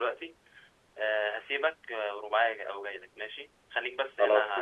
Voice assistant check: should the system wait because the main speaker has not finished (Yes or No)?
Yes